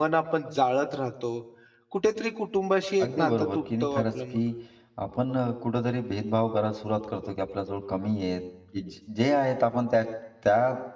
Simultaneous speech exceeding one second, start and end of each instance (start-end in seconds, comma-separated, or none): 3.0-4.4